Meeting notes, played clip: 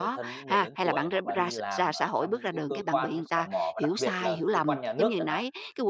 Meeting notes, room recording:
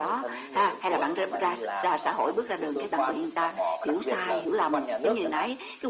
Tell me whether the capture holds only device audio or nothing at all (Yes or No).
Yes